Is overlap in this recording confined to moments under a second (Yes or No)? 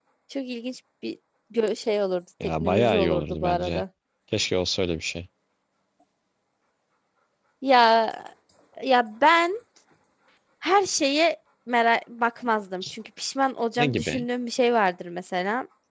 No